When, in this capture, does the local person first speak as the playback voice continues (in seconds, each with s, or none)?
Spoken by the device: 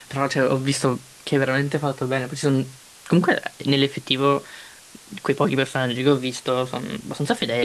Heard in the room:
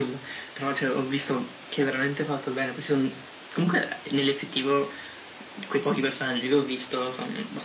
none